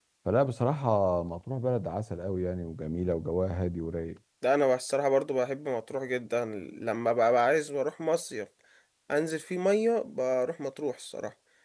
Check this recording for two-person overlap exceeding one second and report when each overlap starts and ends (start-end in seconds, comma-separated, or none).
none